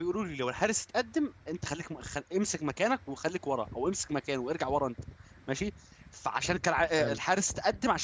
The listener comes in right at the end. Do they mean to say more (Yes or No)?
No